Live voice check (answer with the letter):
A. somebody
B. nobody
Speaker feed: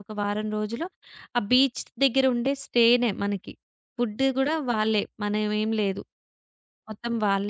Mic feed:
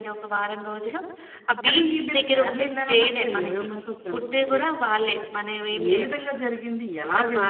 A